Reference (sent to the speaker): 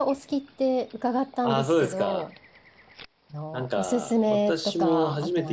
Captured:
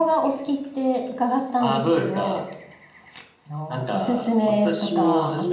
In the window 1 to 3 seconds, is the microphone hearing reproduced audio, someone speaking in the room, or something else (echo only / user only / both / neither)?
echo only